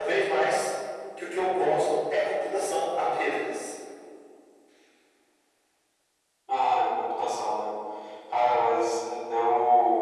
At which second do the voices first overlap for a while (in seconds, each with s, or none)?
none